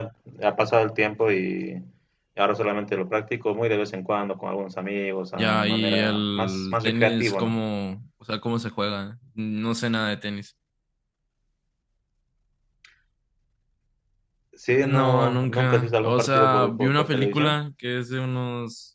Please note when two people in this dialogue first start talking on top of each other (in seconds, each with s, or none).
5.4 s